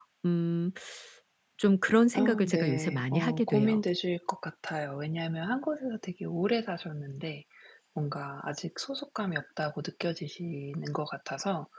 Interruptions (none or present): present